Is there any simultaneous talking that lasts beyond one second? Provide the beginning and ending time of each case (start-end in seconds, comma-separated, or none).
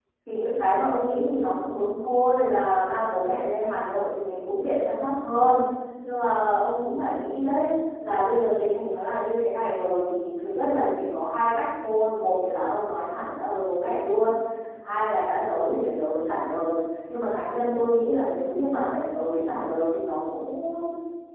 none